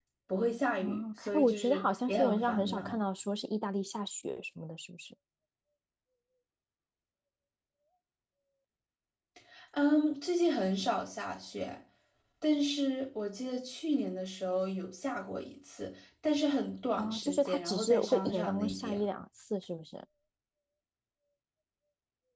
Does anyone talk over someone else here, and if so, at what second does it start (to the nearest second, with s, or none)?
1 s